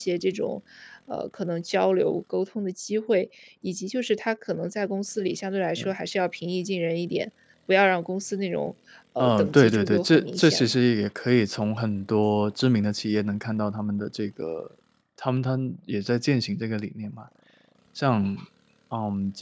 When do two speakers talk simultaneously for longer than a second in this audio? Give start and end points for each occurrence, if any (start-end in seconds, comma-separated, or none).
9.2-10.8